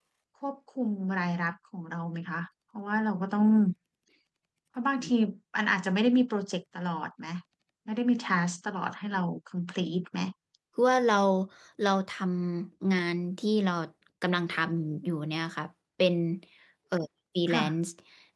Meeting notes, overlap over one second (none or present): none